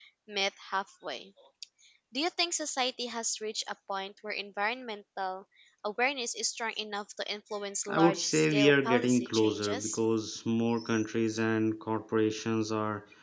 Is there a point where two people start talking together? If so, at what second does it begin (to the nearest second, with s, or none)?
8 s